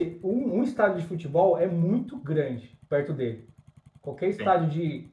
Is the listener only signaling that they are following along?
Yes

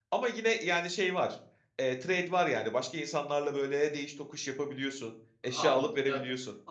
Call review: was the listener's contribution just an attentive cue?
No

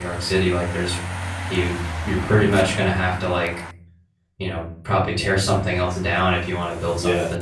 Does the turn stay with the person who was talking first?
No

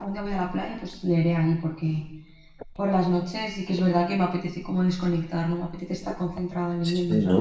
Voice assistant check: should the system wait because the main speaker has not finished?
No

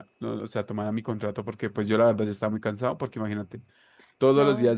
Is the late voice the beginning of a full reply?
No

